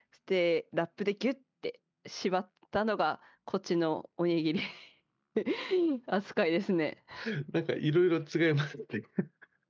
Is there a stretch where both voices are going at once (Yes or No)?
No